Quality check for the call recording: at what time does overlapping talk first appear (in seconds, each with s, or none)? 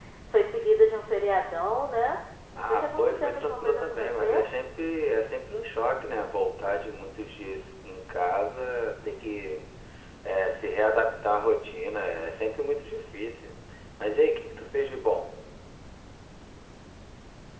2.6 s